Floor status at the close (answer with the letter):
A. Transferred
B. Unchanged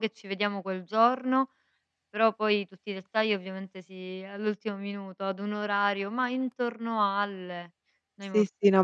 A